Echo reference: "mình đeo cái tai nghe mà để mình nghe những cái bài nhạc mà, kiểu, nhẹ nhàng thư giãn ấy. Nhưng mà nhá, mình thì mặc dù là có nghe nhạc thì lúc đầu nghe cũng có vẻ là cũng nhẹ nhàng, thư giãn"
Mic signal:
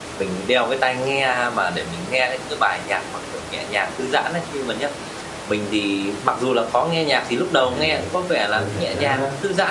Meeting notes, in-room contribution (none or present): present